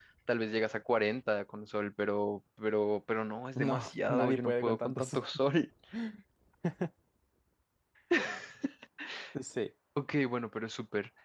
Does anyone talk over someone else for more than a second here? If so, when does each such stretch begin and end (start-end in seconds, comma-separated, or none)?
3.6-5.1